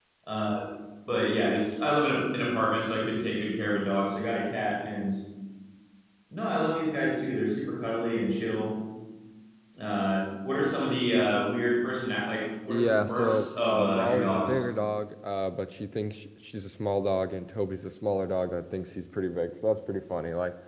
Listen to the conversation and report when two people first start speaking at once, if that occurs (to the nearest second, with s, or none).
13 s